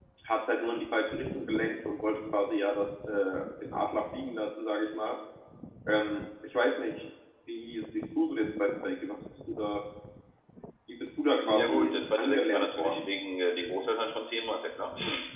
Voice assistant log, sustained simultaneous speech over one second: present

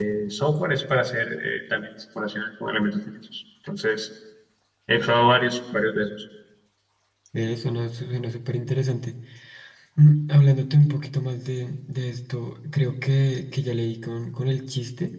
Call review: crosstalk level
none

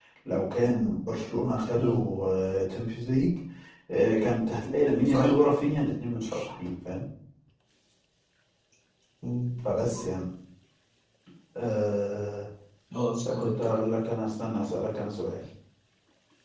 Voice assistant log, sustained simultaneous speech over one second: none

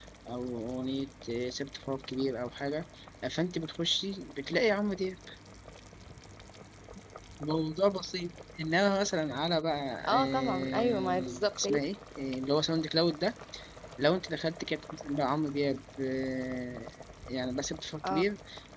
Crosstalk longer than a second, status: present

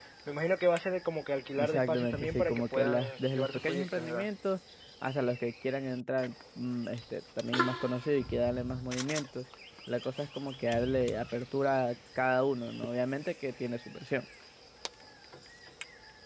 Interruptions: present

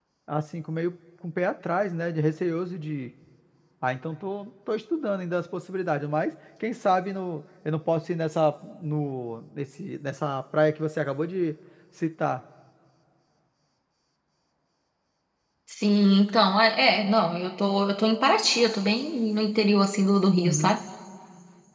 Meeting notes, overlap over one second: none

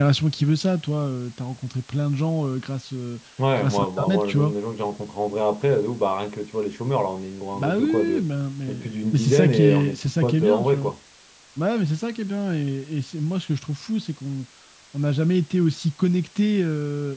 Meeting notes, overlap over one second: present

